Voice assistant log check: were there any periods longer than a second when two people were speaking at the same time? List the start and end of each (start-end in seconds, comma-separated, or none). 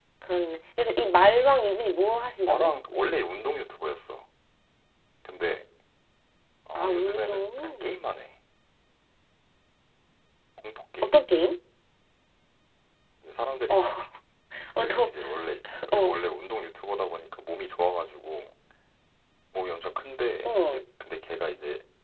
6.8-8.0